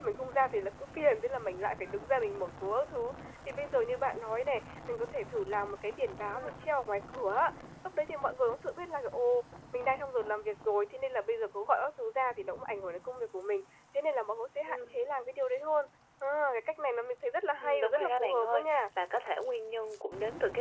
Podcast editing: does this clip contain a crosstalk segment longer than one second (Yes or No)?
Yes